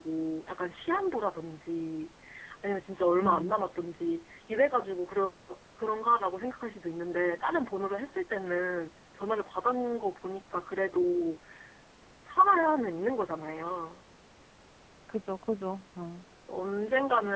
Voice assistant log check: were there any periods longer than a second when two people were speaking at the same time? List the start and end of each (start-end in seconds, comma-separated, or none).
none